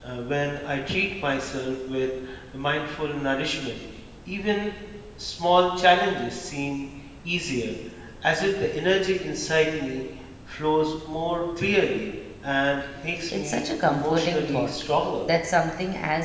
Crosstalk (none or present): present